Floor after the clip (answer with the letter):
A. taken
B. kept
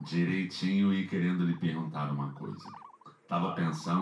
B